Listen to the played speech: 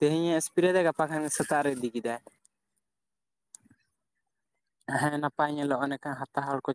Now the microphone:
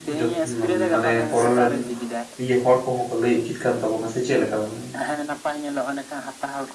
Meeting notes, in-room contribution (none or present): present